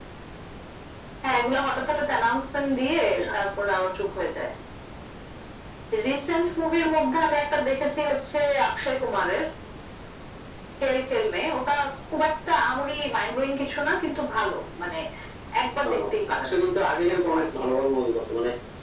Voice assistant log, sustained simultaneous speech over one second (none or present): none